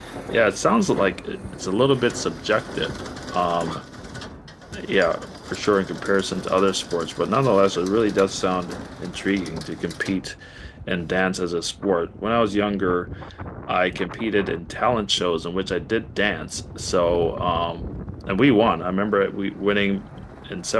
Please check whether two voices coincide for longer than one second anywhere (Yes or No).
No